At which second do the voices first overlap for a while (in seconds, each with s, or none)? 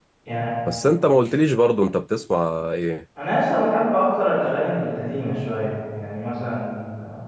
none